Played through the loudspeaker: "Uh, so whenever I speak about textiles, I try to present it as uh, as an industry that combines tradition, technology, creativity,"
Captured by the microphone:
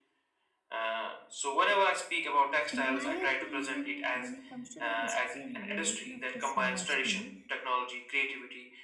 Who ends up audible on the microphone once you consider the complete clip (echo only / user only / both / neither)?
both